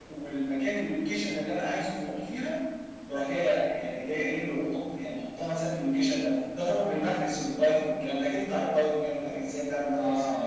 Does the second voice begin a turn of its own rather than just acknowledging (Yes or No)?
Yes